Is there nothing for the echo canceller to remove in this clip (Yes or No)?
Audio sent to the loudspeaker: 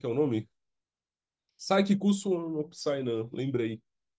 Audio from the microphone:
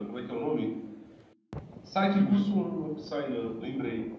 No